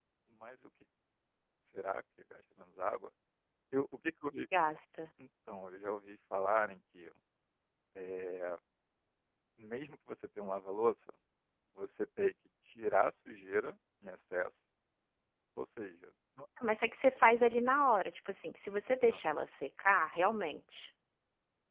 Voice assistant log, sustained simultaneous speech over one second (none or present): none